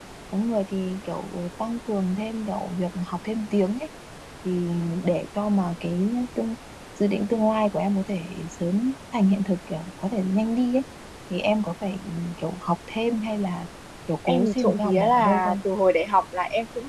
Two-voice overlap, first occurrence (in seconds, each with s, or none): 14.3 s